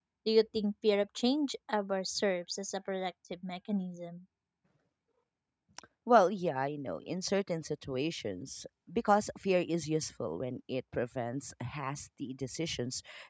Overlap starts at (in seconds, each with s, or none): none